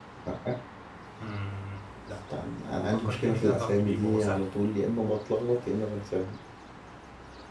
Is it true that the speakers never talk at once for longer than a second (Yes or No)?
No